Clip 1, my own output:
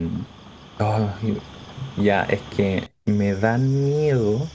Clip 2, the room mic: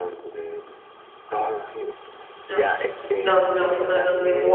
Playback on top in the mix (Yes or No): No